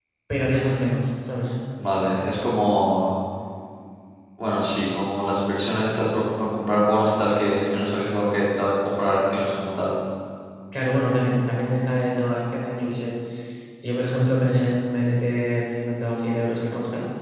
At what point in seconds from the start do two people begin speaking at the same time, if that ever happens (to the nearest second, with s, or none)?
none